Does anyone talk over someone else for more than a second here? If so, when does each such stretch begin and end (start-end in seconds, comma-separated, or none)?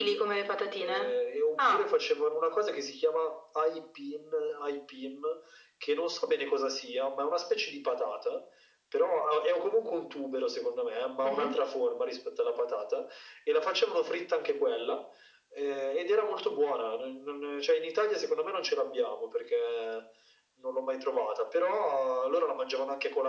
none